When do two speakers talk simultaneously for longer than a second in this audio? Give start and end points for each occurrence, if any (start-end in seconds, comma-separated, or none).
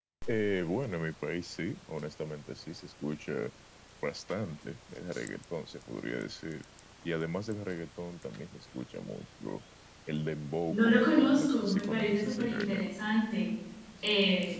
10.7-12.9